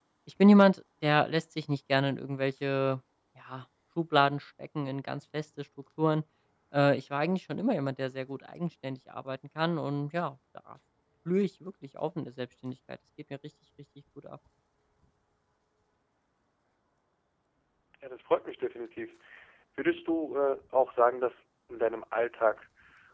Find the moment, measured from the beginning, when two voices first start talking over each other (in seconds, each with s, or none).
none